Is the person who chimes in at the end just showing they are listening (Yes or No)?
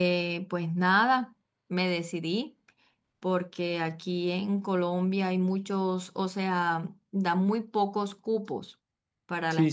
No